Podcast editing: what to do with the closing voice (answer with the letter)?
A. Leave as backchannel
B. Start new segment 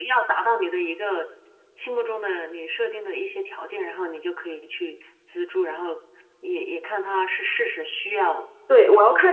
B